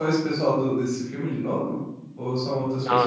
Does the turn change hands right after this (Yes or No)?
Yes